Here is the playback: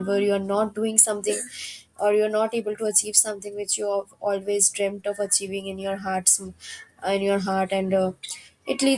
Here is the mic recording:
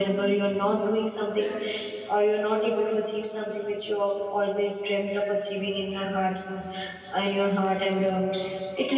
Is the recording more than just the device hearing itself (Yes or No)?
No